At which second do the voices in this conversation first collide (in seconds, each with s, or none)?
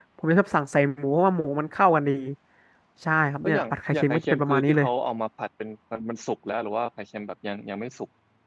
3.4 s